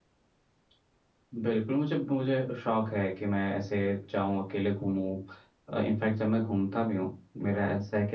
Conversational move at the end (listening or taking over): listening